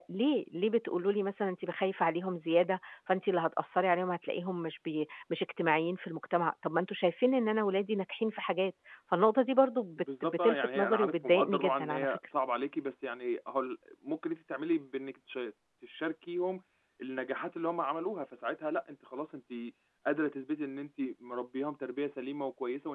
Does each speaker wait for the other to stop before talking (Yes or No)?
No